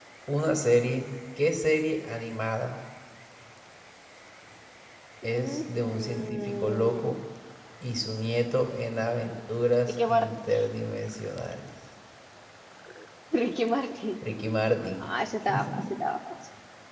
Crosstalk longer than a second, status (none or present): present